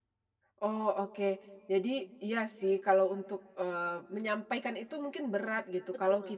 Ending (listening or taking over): listening